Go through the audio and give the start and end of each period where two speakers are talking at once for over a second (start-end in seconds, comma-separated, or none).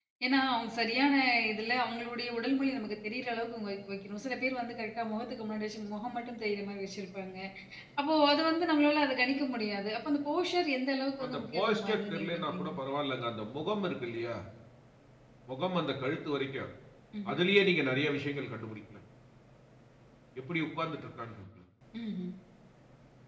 11.2-12.7